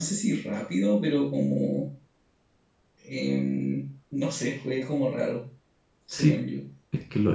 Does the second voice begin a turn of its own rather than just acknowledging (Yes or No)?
Yes